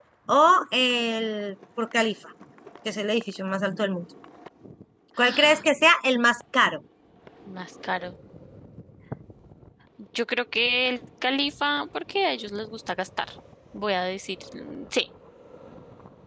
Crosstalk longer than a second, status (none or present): none